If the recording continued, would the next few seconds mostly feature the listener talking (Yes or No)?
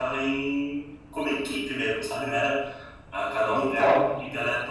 No